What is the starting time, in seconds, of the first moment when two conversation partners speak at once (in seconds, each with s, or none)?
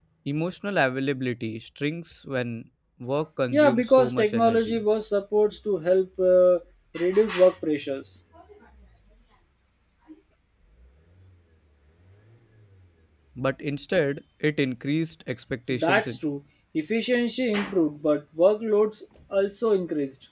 3.5 s